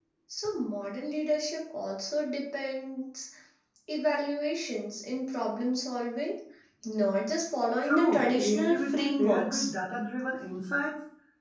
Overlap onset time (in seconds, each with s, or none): 7.8 s